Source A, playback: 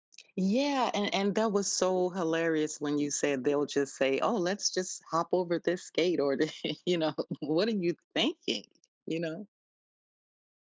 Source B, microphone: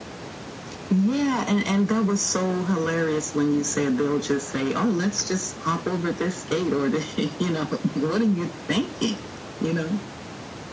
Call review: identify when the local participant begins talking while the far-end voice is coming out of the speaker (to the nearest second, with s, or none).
none